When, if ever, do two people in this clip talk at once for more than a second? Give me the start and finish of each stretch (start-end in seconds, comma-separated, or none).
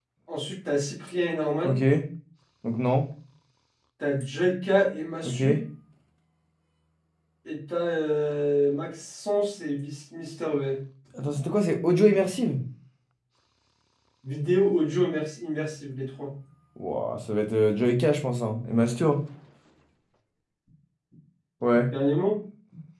none